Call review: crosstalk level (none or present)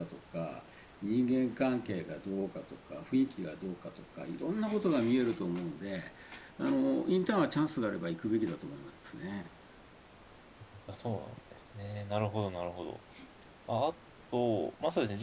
none